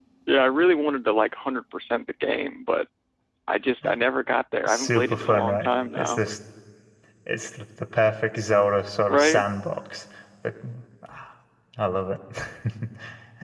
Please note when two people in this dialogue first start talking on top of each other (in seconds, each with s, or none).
4.7 s